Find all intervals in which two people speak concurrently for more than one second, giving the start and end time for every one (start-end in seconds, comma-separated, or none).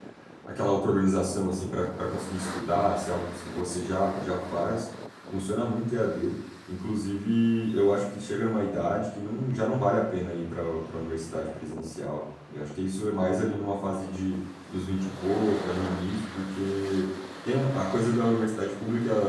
none